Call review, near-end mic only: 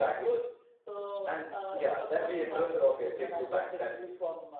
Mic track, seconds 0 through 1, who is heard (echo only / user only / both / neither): echo only